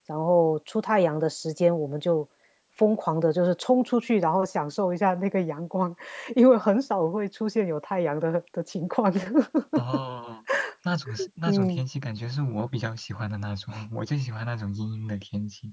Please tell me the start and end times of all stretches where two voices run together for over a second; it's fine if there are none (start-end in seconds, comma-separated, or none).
none